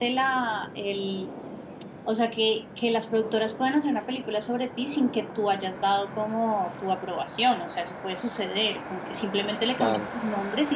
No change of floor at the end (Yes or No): Yes